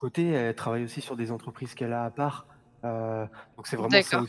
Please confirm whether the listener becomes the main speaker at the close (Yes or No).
Yes